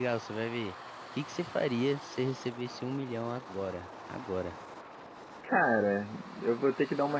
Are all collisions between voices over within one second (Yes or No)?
Yes